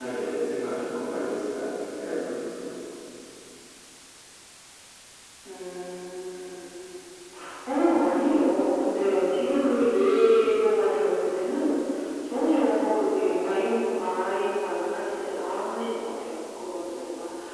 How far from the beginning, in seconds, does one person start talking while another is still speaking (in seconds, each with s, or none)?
none